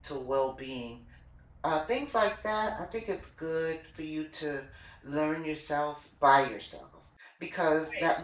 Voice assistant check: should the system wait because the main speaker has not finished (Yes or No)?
Yes